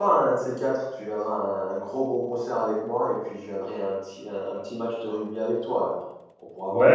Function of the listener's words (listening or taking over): taking over